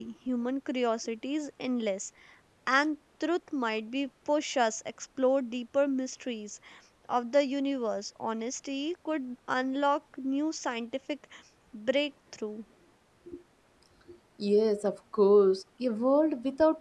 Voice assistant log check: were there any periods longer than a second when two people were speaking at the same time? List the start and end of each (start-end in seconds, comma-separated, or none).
none